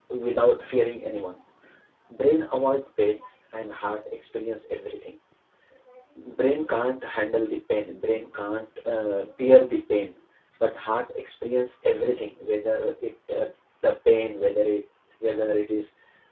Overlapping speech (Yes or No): No